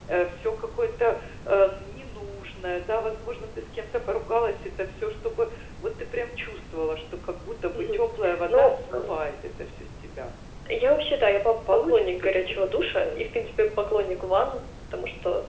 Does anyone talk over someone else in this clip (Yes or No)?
Yes